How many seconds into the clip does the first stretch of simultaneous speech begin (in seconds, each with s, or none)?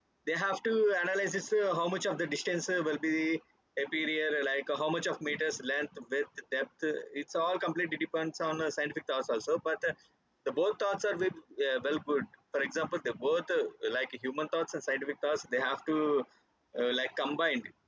none